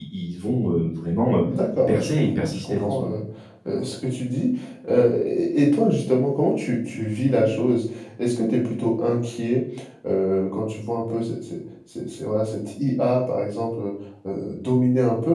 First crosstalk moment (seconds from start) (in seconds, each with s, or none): 1.9 s